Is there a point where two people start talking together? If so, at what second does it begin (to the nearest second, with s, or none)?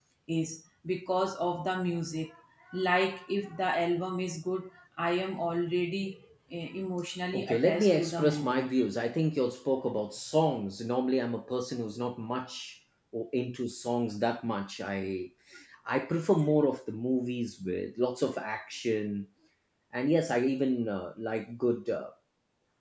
7 s